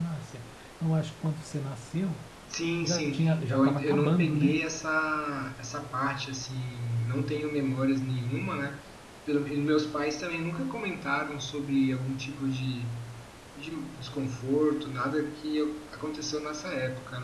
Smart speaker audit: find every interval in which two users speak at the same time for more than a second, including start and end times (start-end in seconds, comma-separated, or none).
2.8-4.6